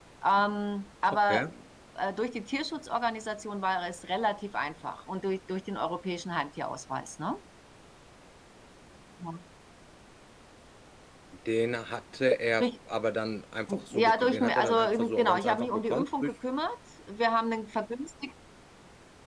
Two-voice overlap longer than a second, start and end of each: 13.9-16.3

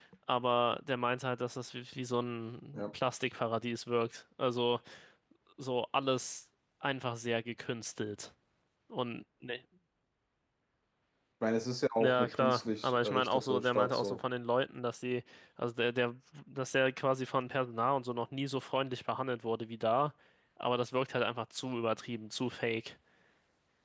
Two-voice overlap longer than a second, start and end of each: 12.0-14.2

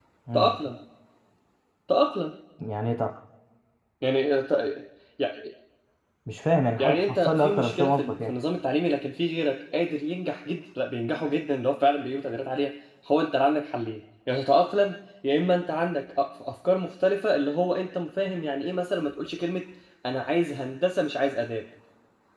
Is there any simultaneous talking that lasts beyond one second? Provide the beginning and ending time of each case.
6.8-8.3

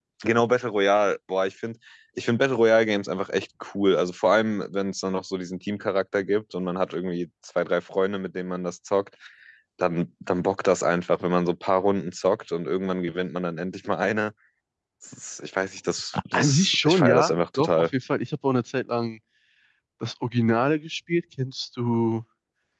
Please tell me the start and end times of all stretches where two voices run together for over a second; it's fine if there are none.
16.3-17.9

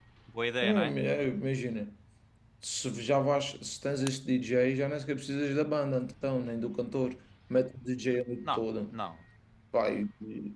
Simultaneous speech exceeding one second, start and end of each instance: none

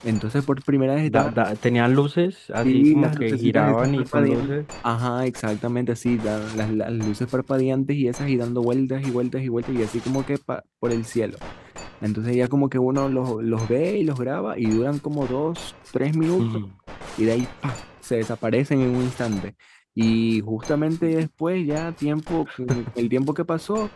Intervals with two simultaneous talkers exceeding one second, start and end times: 2.6-4.6

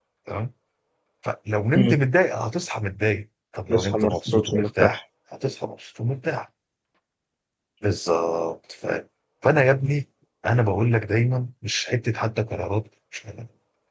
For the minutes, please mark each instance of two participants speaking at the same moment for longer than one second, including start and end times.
3.7-5.0

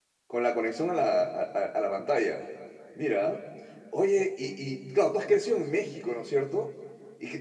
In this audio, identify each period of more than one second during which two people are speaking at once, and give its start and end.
none

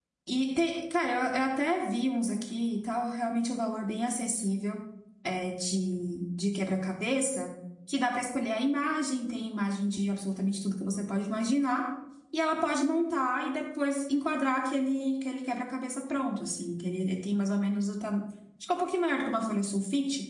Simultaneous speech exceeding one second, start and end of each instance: none

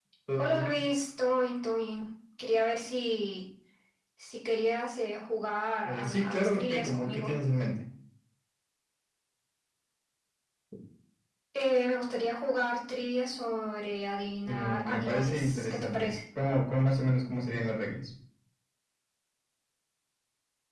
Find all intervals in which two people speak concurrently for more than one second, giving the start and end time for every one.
5.8-7.3, 14.5-16.1

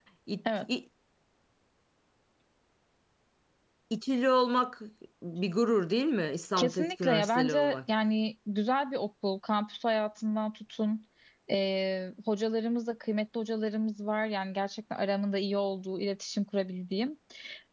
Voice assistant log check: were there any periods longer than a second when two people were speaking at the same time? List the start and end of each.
6.6-7.8

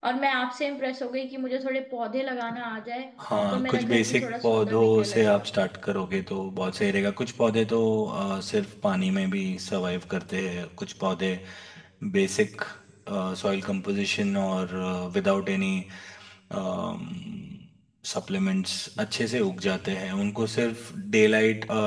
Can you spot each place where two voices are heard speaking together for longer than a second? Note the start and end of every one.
3.5-5.5

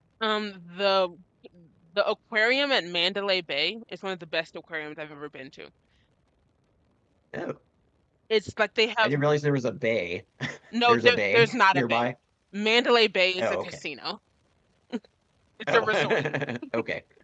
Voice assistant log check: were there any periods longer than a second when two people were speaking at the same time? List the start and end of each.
10.8-12.1

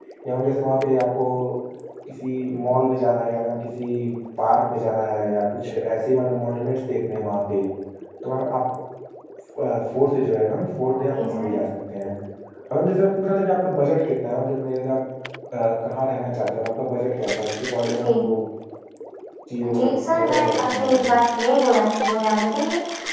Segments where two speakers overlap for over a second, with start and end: 19.7-21.1

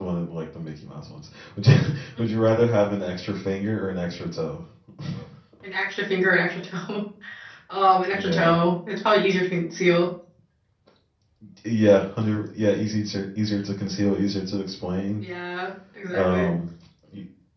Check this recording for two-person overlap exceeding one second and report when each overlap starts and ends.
none

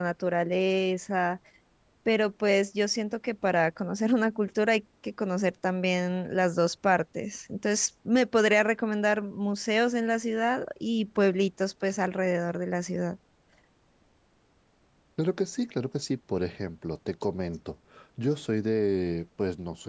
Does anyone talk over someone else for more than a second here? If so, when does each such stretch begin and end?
none

